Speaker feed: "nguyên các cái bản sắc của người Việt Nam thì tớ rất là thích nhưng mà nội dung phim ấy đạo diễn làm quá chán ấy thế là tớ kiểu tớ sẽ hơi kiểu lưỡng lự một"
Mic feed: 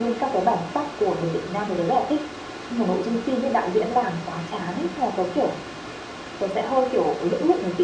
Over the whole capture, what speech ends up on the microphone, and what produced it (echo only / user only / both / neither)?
echo only